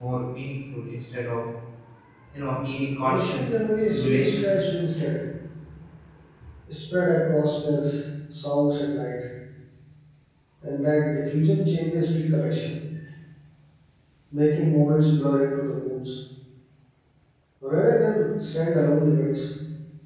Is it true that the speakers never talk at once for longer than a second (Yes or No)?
No